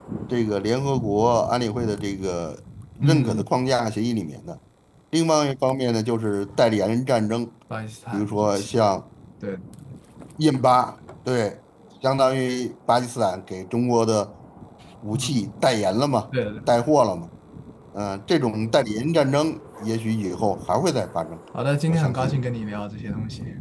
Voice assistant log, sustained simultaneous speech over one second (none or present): none